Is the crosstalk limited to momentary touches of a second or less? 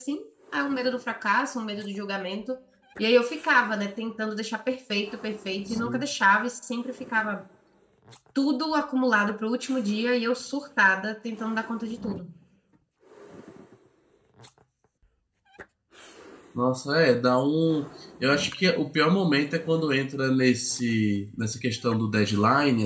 Yes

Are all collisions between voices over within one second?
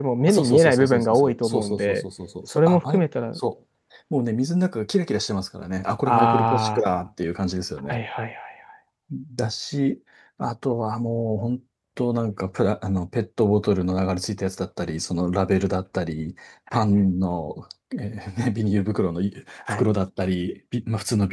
No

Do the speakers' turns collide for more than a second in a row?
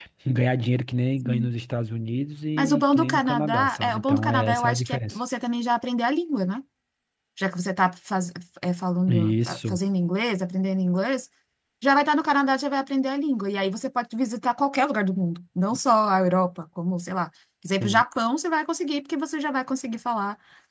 Yes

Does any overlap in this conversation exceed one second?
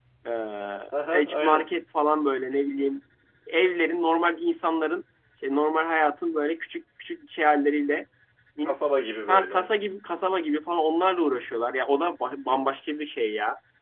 No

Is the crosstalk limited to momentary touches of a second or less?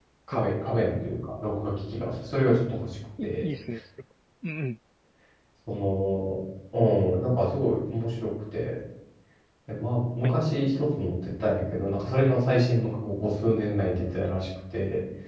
Yes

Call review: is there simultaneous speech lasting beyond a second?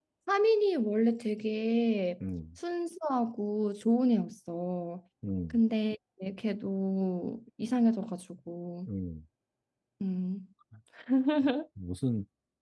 No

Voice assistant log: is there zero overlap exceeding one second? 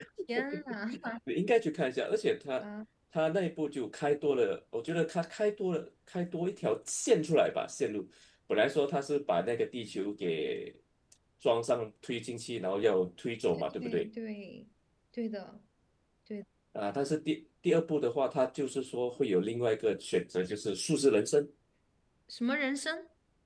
Yes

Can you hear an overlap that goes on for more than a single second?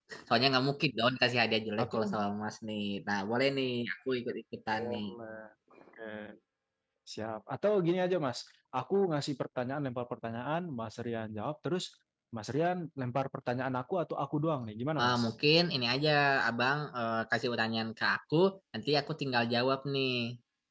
No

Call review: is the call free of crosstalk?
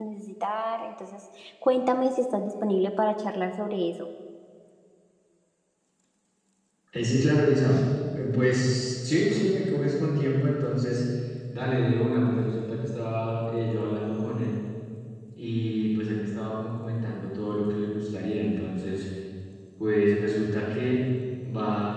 Yes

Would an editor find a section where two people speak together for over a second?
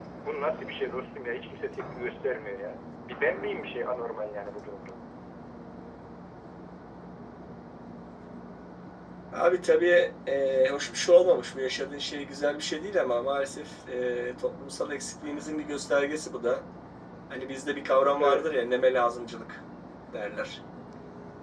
No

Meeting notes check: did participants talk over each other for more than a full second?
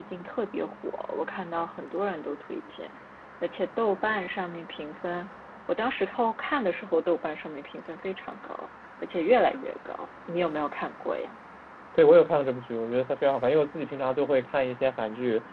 No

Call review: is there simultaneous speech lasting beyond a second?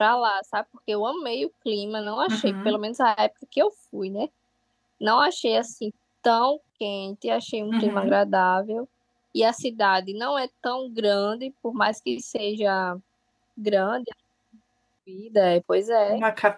No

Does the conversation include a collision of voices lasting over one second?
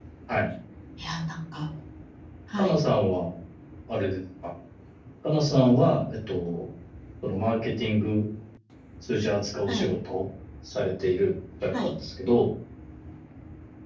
No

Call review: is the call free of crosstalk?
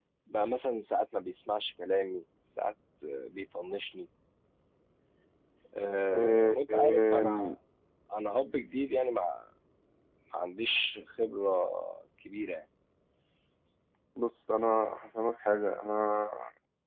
No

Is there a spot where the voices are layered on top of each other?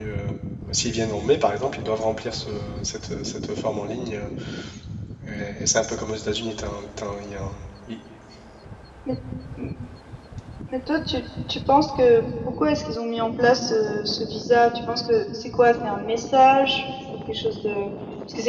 No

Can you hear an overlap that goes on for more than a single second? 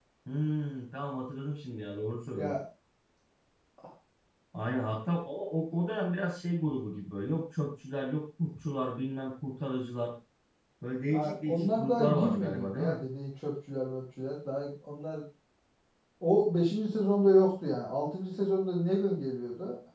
Yes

